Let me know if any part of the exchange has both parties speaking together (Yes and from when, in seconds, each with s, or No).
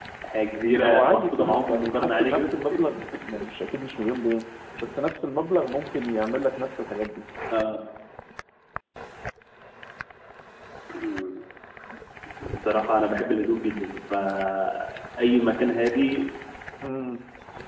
Yes, from 0.7 s